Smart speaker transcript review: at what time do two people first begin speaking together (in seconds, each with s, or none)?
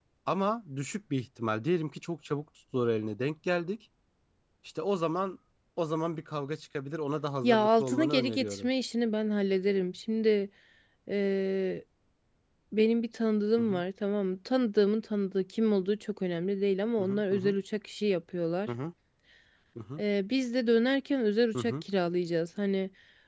7.4 s